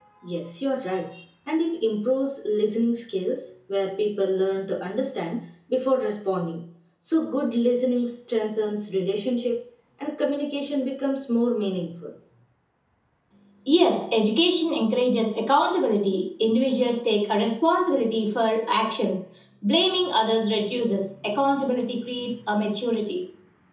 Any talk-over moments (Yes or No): No